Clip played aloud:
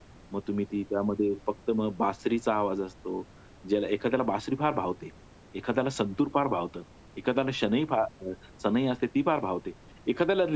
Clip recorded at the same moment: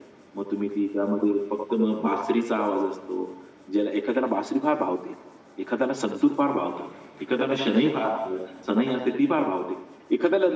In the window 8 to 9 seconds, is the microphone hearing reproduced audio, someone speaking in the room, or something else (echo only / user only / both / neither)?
echo only